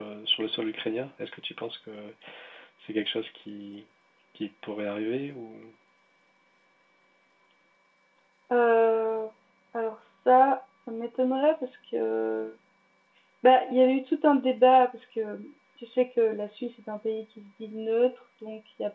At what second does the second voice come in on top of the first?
none

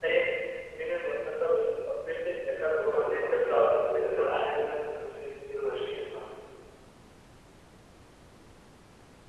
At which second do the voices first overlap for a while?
2.6 s

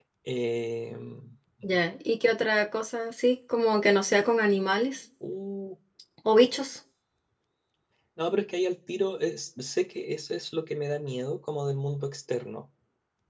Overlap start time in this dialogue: none

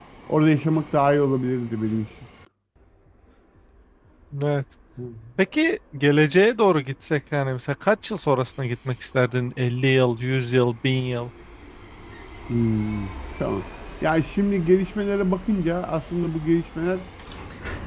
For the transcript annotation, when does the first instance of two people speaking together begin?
none

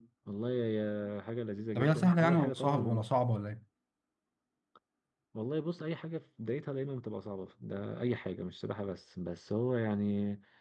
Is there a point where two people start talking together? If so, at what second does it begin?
1.8 s

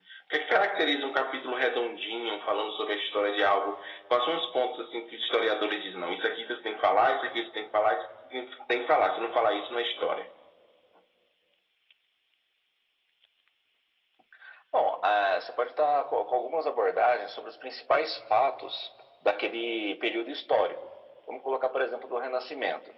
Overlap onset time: none

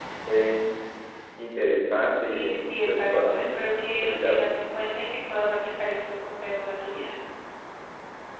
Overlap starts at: 2.3 s

